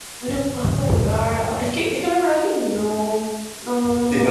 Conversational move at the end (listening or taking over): taking over